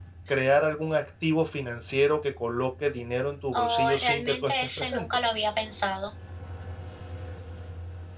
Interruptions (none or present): present